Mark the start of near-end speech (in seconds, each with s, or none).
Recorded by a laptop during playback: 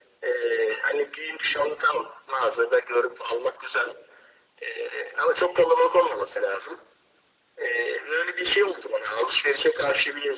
none